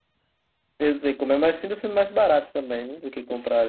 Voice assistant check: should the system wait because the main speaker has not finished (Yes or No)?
No